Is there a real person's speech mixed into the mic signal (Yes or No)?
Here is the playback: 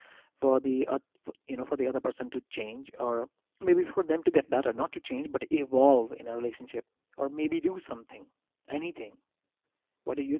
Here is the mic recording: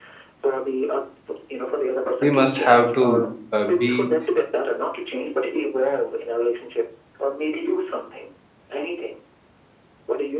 Yes